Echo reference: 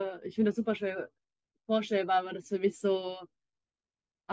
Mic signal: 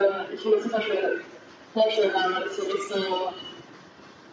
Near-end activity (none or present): none